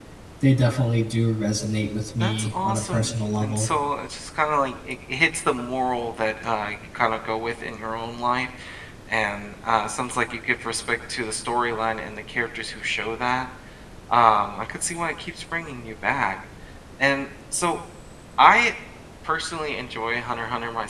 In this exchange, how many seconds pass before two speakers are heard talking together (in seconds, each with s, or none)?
2.2 s